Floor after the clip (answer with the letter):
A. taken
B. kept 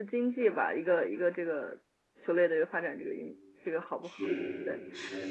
A